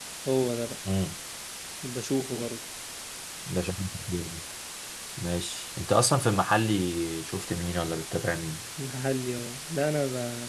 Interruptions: none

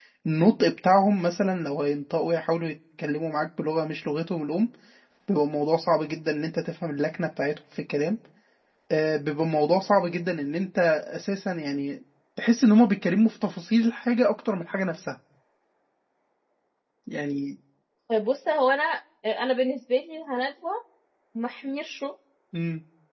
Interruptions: none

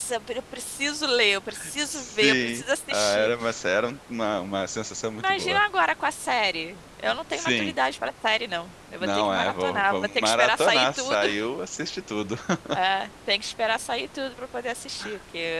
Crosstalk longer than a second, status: present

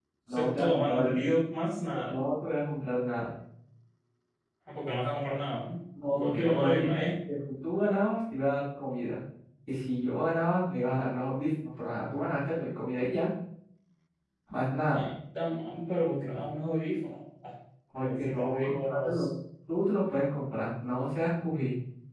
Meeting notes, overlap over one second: present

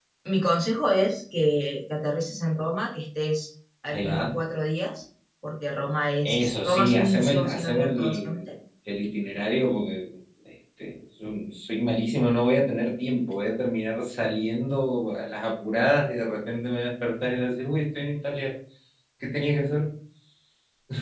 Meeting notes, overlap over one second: present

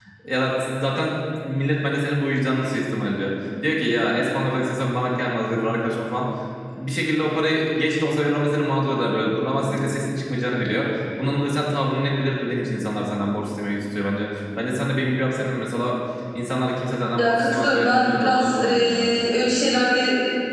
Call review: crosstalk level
present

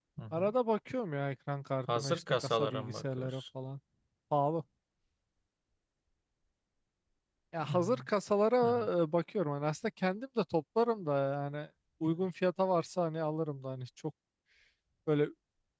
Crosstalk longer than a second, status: present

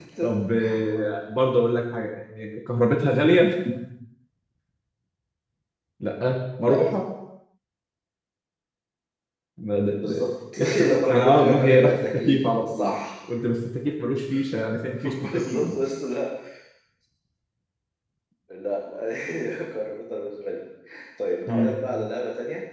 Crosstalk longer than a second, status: present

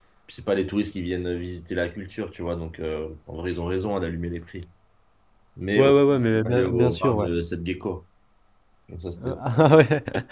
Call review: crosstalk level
present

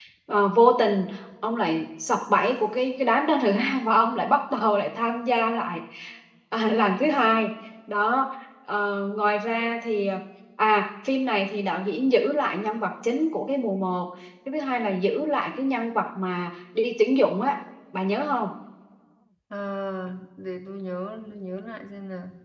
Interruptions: none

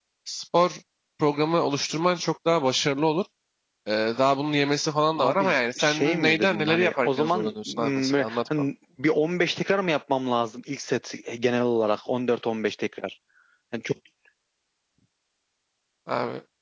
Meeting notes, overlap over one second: present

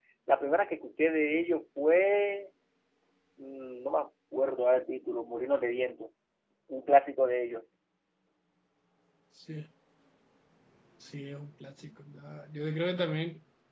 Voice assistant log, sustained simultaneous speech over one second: none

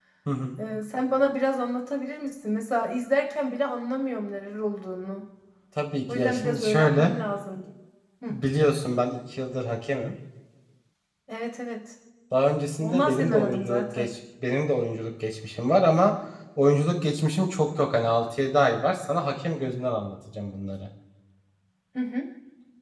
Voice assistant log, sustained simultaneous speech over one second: present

